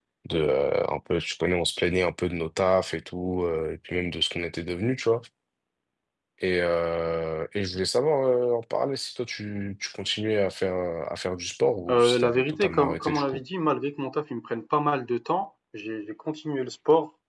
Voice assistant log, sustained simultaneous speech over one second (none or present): present